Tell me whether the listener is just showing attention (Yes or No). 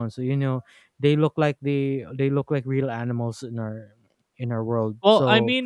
No